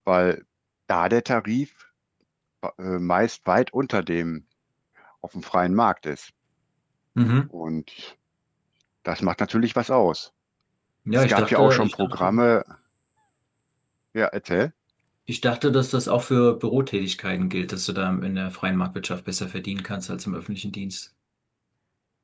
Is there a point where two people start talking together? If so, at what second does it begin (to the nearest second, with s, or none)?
11 s